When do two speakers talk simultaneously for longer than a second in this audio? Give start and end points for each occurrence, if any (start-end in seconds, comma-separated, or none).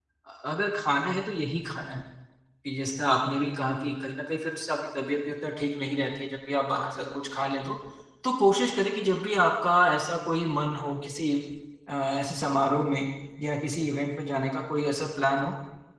none